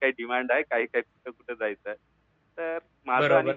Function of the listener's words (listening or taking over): taking over